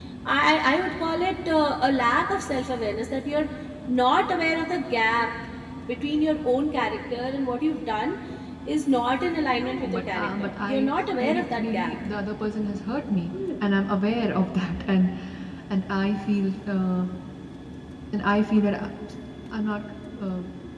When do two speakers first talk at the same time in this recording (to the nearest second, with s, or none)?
10 s